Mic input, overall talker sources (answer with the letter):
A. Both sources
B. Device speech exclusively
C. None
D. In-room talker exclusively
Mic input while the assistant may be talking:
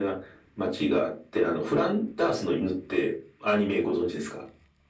B